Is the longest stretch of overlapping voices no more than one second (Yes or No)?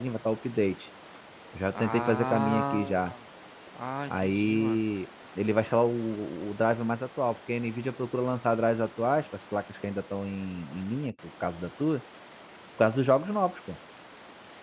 No